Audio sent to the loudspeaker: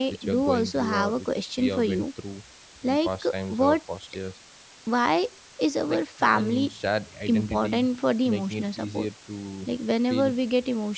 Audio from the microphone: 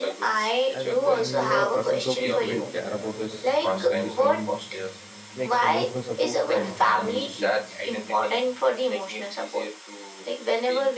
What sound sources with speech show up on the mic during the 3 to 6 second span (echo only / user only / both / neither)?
both